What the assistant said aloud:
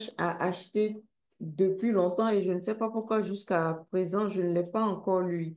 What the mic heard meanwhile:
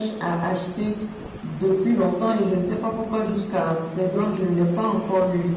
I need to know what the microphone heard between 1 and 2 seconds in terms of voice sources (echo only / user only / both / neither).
echo only